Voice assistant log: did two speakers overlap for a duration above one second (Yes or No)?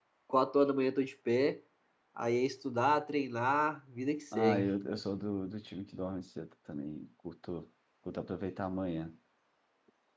No